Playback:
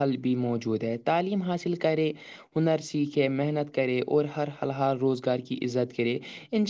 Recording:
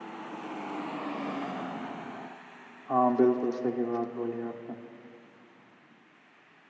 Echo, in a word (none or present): none